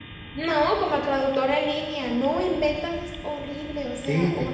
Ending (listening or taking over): taking over